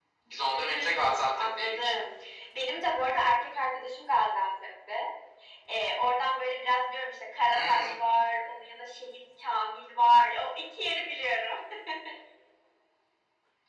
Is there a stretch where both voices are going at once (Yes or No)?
Yes